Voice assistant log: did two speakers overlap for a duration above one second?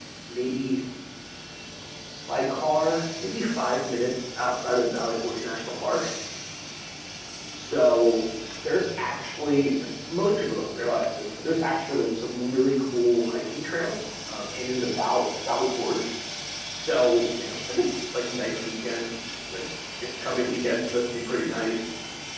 No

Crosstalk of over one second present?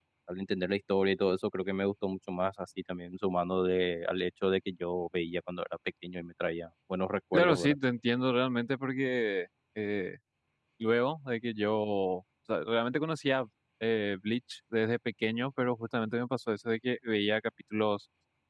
No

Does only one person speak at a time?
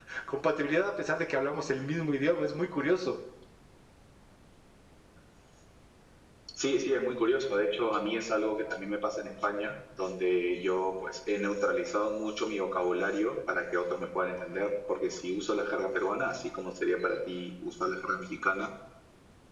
Yes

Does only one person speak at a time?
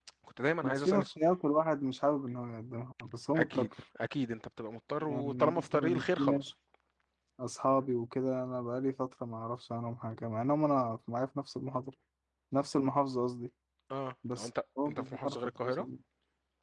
No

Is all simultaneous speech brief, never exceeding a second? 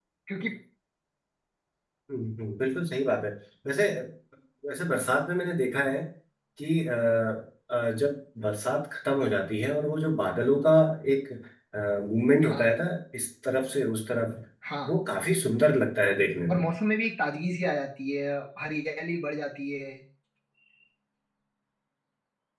Yes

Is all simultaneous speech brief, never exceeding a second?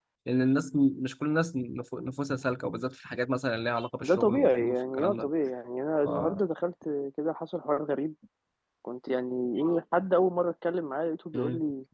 No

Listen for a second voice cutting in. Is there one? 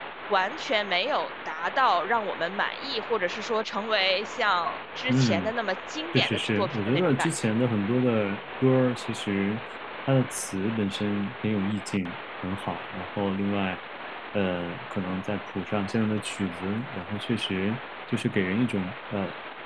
Yes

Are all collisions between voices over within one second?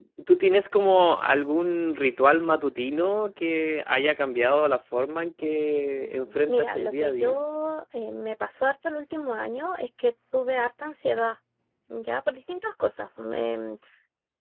No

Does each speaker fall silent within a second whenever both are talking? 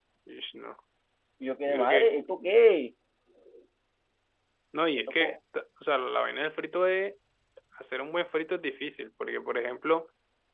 Yes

